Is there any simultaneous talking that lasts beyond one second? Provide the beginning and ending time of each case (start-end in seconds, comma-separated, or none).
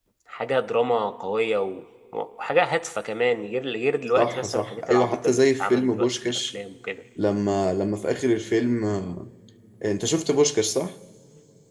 4.2-6.4